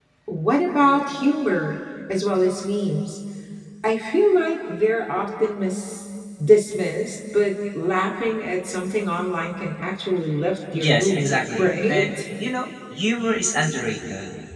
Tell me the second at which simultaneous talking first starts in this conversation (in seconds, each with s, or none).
10.7 s